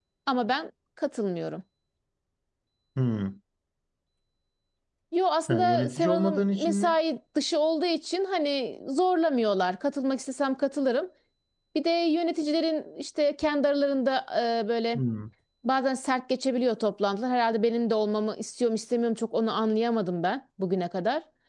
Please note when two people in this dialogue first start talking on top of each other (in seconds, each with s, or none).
5.5 s